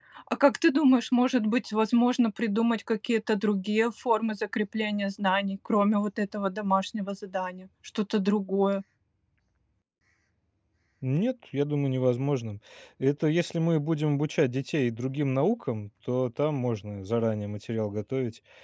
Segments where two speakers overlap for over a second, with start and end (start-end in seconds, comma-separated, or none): none